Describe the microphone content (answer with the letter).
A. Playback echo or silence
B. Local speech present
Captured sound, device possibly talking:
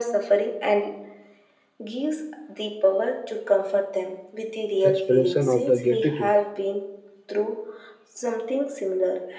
B